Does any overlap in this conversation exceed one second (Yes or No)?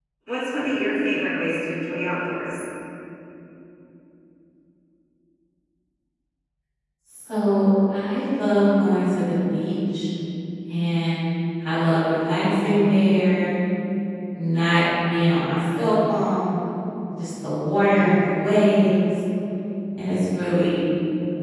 No